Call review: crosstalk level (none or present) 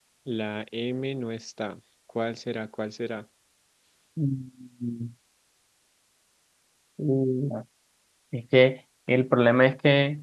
none